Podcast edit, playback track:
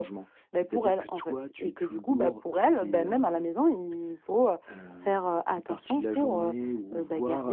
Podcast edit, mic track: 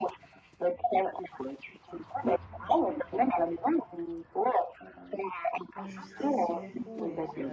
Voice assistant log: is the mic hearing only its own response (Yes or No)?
No